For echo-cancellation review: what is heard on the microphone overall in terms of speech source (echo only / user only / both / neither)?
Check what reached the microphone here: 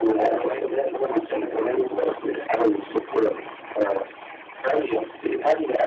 echo only